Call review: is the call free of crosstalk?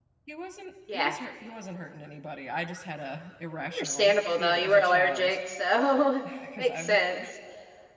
No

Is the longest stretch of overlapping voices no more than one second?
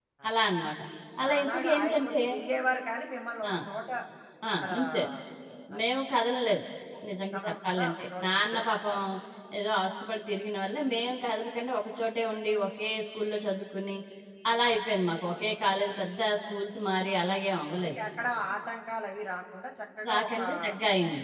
No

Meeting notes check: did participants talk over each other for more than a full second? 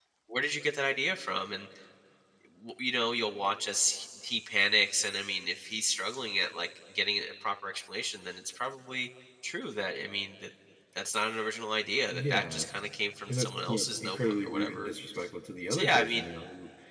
Yes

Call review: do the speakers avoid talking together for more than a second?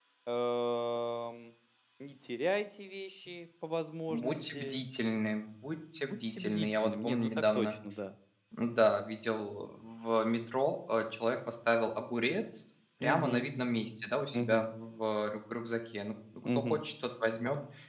No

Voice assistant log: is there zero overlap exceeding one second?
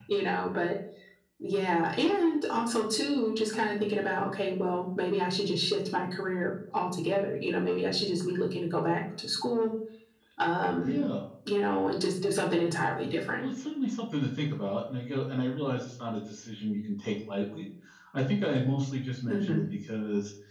Yes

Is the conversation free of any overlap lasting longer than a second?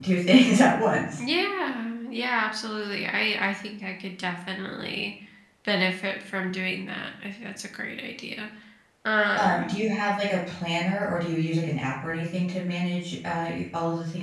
Yes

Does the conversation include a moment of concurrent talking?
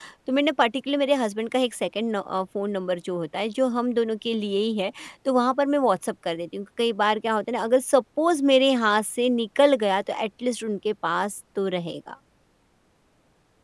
No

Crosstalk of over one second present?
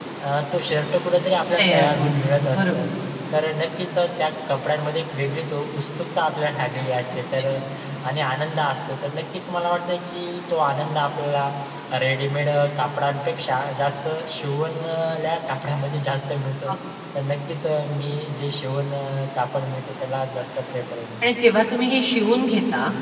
Yes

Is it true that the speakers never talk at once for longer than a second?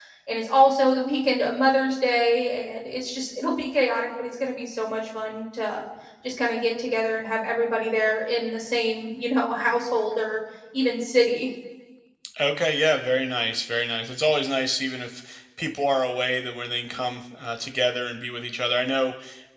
Yes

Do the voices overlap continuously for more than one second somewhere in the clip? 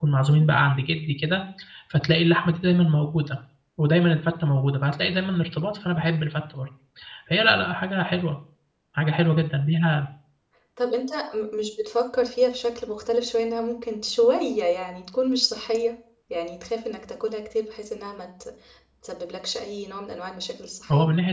No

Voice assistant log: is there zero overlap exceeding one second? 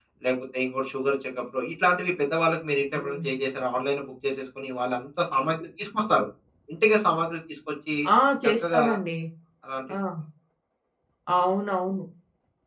Yes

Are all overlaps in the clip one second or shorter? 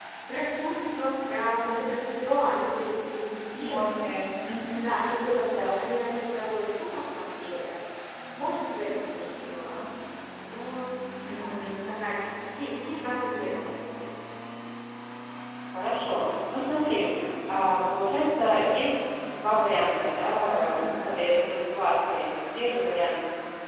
Yes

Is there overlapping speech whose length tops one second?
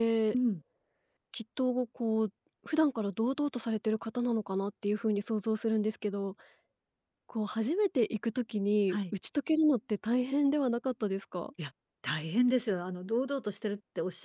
No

